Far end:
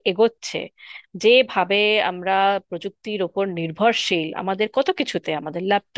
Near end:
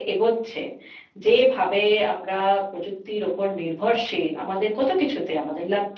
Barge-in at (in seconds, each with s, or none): none